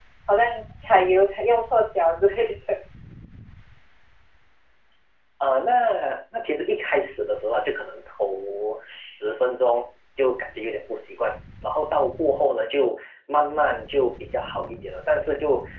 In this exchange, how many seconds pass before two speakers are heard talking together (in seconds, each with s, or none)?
none